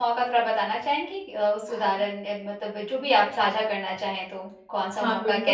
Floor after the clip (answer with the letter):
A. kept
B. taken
B